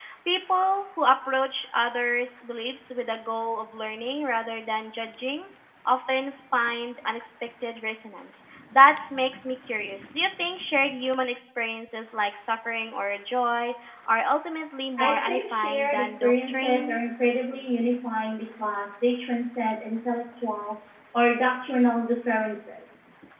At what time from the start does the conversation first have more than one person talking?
15.0 s

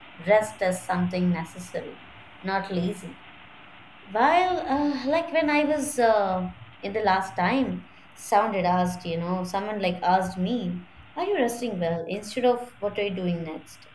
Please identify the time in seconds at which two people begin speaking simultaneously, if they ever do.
none

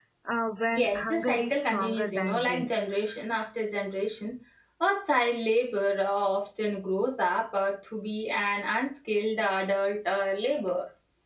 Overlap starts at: 0.7 s

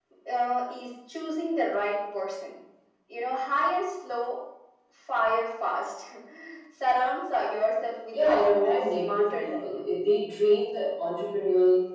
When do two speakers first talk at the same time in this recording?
8.1 s

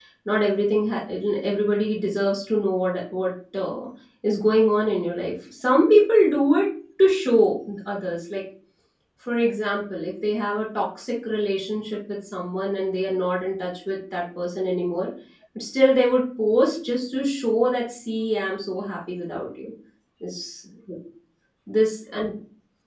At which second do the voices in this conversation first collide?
none

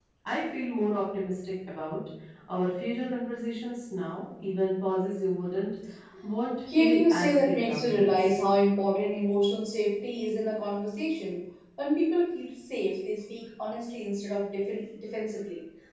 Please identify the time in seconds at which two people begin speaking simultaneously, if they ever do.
6.8 s

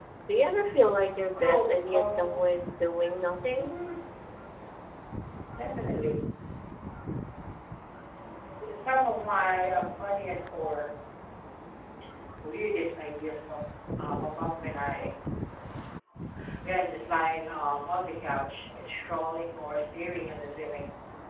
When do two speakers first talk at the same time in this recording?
1.3 s

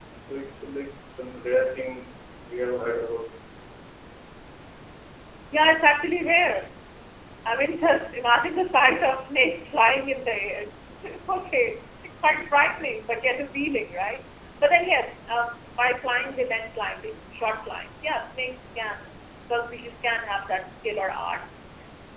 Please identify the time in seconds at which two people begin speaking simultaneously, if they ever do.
none

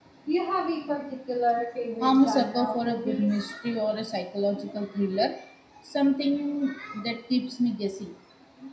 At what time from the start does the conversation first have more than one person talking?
2.0 s

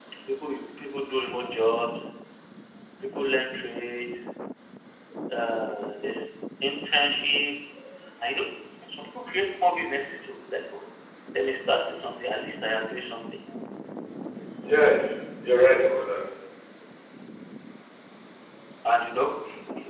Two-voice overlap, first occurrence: none

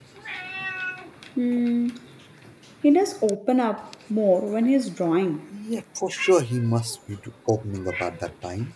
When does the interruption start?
none

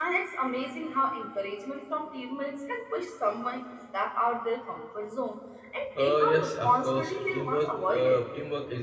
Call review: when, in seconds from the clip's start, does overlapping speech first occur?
6.0 s

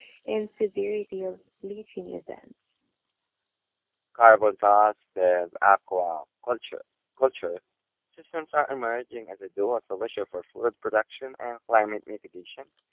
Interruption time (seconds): none

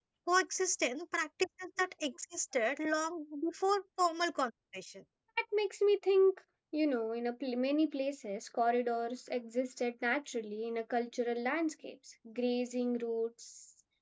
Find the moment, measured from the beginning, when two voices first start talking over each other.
none

